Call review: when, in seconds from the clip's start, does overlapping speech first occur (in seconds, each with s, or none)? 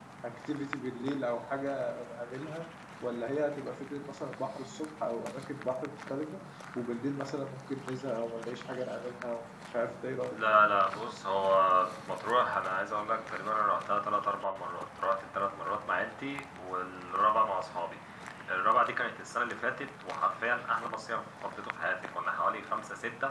none